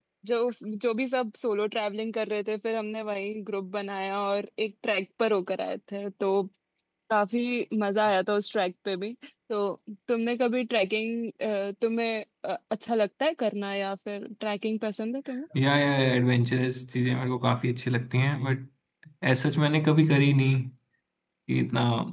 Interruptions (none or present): none